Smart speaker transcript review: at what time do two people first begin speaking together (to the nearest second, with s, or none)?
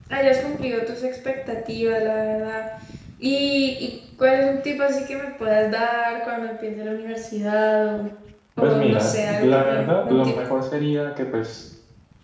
9 s